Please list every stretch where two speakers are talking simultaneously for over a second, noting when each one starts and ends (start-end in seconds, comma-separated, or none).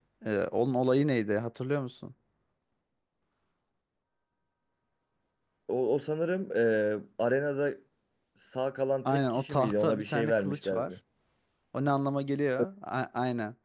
9.1-10.9